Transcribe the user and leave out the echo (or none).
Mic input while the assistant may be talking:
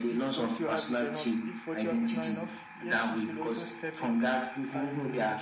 none